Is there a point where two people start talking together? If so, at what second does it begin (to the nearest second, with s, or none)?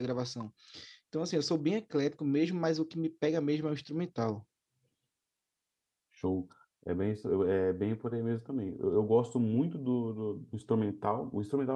none